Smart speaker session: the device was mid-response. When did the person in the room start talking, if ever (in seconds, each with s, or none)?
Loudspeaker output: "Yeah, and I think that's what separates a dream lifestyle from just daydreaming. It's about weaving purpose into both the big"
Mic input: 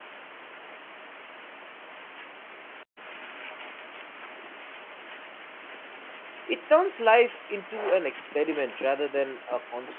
6.5 s